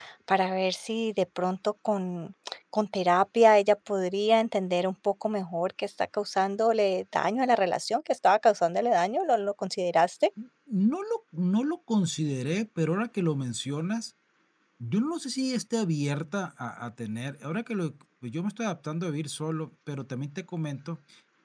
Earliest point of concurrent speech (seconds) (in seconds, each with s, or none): none